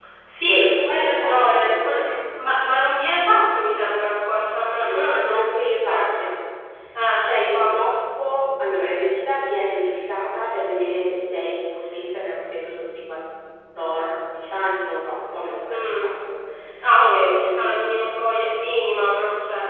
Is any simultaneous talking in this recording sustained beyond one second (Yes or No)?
Yes